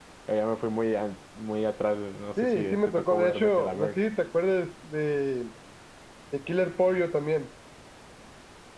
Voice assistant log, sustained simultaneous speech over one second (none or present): present